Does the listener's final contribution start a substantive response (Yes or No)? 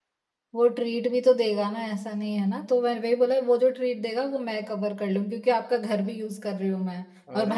Yes